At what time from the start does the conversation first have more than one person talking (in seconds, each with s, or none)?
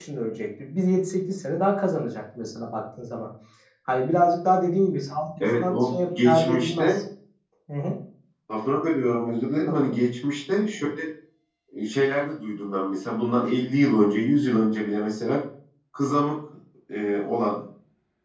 5.6 s